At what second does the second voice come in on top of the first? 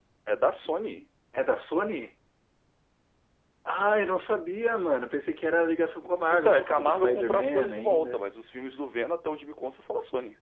6 s

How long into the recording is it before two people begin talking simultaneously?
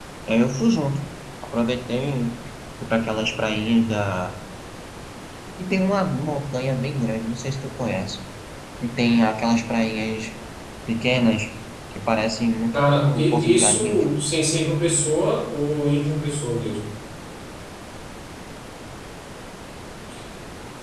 13 s

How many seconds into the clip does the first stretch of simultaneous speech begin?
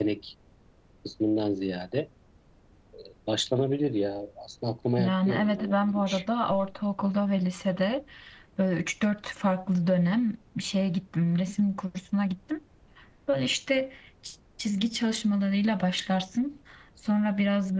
5 s

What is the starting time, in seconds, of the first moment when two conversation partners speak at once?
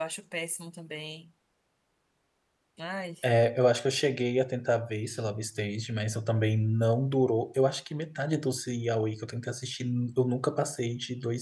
none

